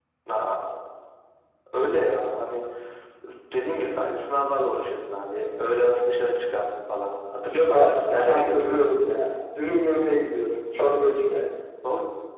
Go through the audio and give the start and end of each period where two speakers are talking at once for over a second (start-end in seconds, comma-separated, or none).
7.7-8.9